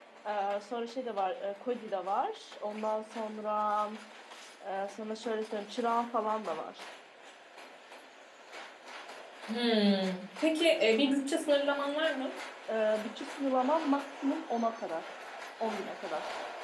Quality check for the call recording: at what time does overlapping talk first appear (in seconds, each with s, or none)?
none